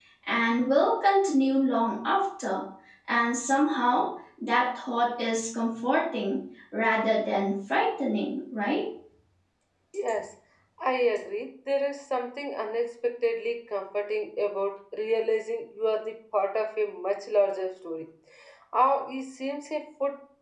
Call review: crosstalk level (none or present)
none